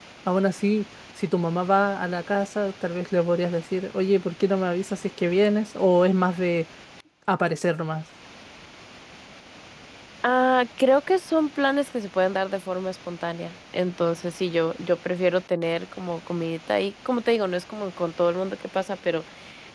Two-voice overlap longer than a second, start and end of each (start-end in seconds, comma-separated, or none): none